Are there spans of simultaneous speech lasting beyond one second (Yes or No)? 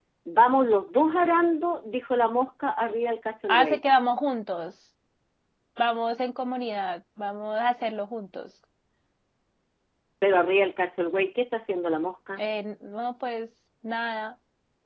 No